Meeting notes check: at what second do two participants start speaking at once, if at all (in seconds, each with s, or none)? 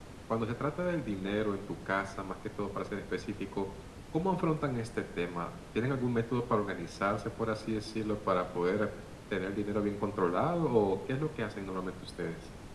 none